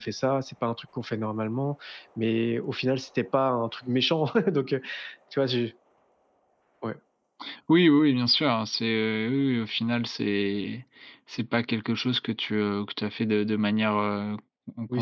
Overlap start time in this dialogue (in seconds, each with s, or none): none